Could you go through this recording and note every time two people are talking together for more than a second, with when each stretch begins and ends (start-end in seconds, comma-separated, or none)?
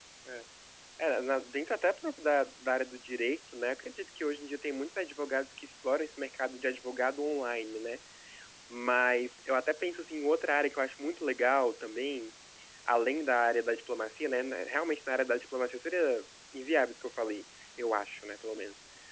none